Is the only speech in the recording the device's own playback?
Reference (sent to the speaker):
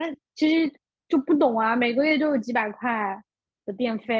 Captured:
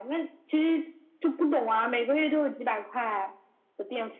Yes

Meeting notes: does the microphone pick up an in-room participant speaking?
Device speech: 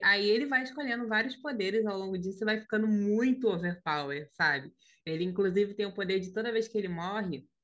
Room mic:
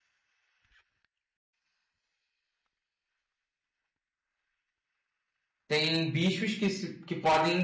Yes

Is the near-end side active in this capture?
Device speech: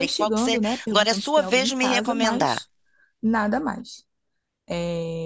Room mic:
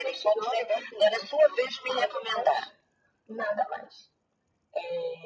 No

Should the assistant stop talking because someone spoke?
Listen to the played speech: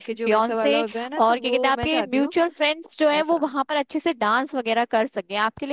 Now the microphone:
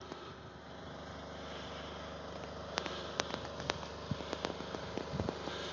No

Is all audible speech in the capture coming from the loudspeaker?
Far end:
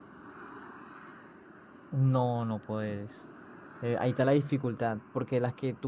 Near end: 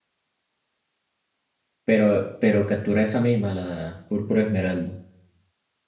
No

